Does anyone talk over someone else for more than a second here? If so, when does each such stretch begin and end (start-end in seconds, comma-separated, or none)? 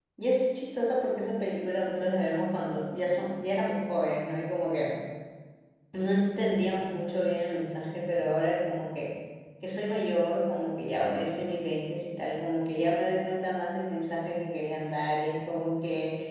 none